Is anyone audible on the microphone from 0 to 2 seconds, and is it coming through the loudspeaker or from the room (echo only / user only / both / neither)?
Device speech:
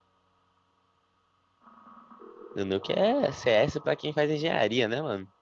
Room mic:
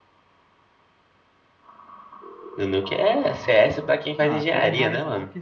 neither